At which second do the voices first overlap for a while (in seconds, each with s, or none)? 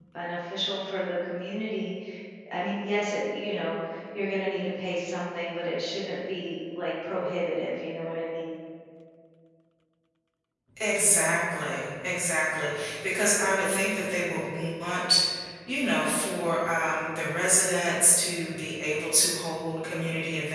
none